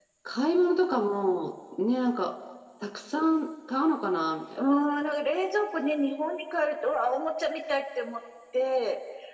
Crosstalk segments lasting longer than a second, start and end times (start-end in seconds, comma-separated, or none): none